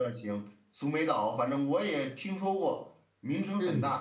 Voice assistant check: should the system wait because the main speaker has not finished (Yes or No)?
No